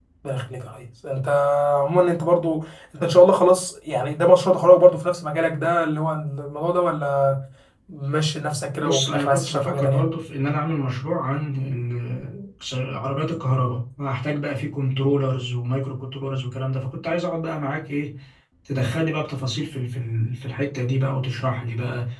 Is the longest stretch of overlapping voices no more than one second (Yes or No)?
No